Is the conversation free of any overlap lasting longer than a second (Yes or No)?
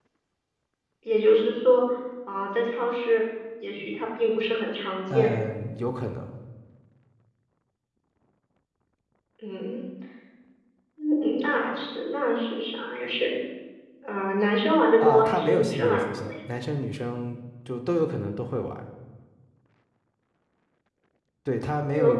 No